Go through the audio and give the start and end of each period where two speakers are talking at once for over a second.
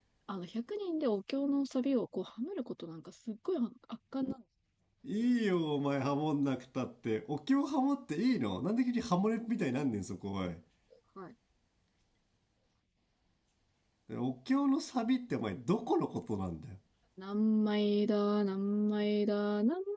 none

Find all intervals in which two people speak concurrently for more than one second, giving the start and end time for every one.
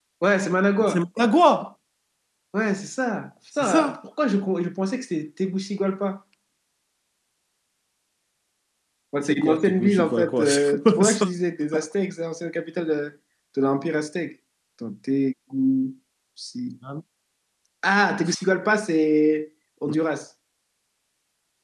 9.3-11.3

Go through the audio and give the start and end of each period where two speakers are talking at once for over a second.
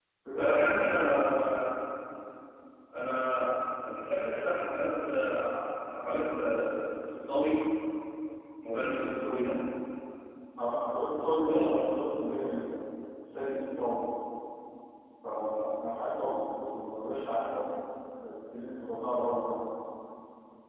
none

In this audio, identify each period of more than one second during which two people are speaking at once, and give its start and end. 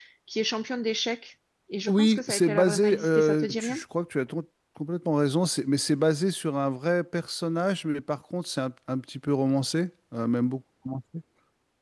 1.9-3.8

